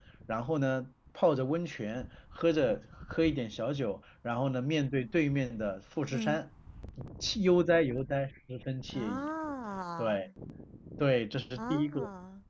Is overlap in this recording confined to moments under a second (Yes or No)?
Yes